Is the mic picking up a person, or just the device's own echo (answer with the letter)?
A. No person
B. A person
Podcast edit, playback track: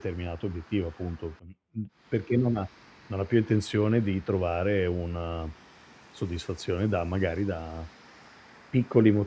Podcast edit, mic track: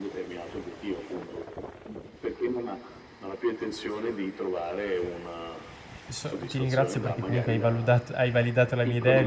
B